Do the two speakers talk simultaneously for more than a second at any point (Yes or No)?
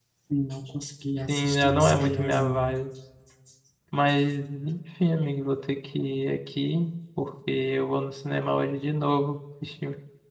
Yes